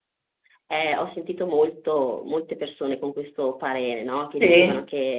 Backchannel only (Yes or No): Yes